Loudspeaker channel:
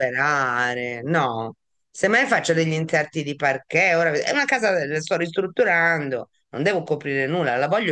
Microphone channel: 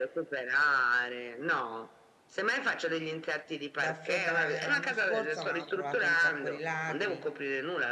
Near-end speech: present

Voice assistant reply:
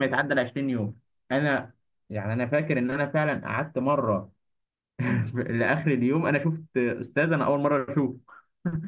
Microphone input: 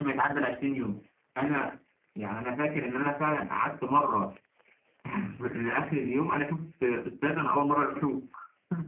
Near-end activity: none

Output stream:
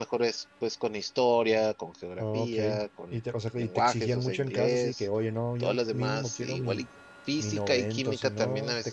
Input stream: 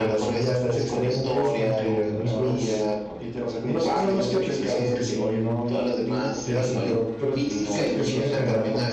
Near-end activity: present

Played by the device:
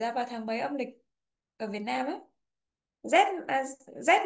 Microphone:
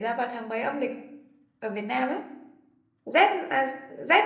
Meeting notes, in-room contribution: none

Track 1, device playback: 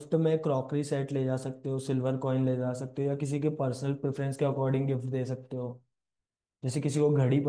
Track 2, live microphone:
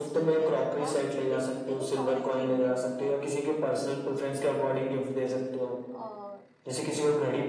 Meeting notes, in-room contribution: present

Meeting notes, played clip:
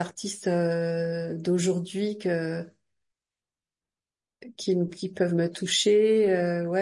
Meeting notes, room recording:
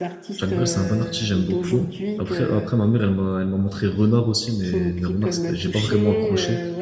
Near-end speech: present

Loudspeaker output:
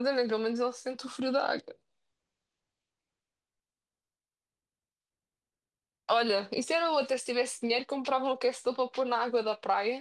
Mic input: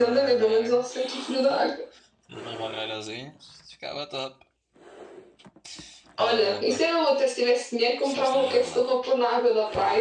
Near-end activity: present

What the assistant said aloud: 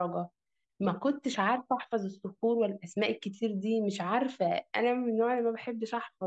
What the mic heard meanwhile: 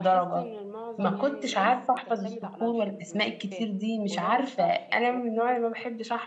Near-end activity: present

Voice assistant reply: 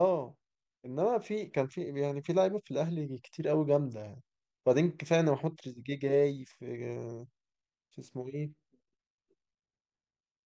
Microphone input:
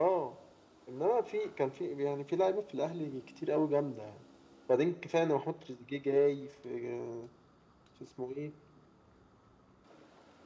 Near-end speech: none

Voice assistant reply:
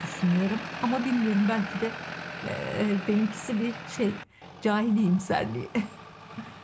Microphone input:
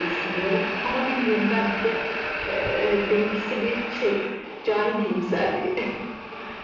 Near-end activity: none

